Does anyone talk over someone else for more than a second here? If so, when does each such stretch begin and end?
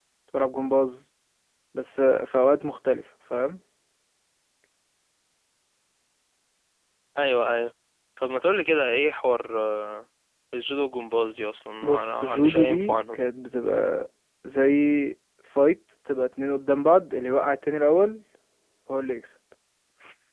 11.8-13.2

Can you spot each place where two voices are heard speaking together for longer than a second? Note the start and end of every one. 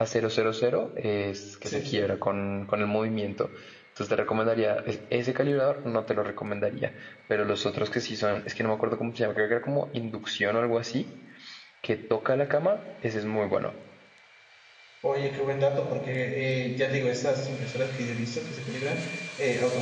none

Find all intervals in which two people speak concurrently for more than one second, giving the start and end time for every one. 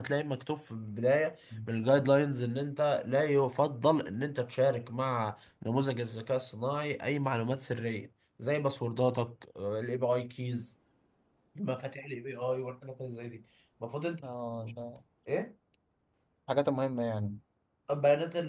none

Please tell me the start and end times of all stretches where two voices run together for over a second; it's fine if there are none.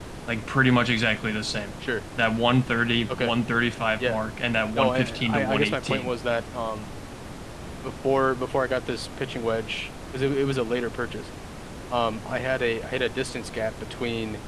4.8-6.1

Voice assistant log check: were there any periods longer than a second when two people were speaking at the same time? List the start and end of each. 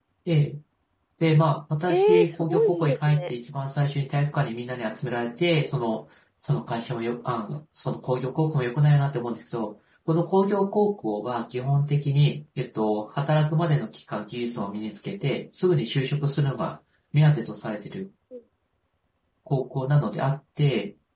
1.9-3.3

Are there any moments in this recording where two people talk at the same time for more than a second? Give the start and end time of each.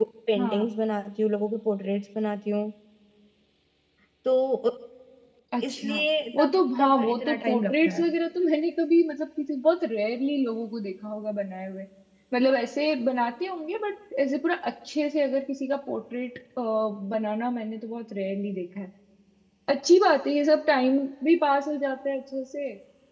6.3-8.0

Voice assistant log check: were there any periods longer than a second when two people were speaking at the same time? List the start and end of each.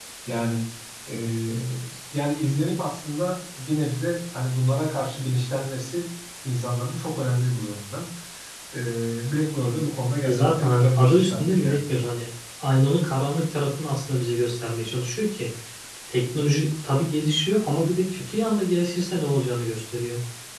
10.2-11.8

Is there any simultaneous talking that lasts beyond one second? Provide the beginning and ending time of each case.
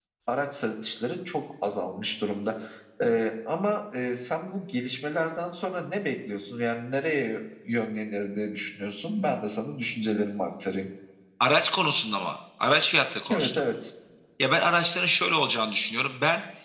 none

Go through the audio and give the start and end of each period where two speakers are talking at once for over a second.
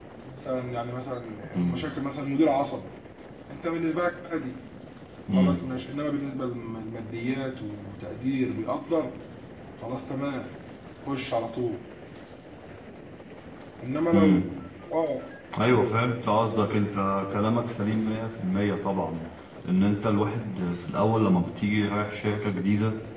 none

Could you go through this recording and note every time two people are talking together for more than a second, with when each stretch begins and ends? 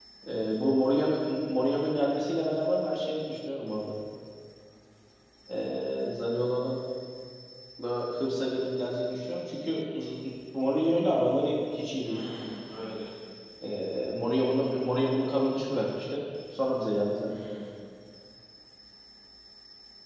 none

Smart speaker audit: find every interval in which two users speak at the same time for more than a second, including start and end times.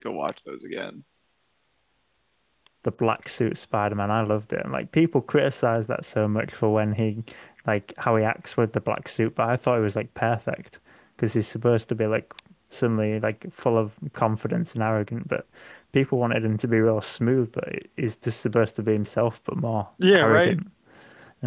none

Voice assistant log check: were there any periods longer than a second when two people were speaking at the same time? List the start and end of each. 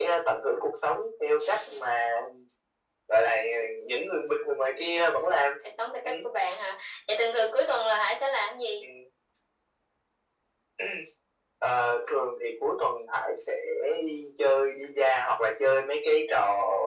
none

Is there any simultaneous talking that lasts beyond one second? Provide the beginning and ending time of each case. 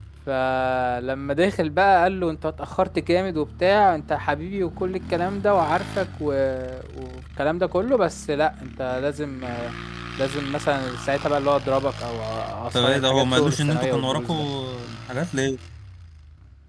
12.7-14.4

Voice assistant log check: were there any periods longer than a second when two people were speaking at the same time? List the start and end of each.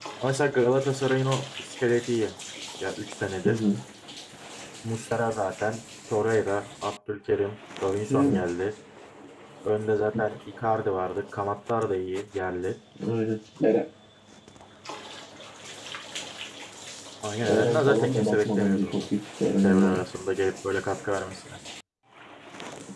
17.5-19.1

